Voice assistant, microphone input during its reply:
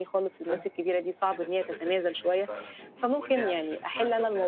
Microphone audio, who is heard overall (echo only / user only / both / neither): both